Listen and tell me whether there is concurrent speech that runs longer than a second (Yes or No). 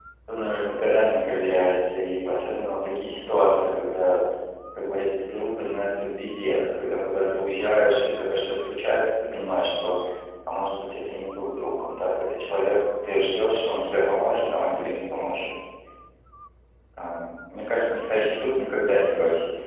No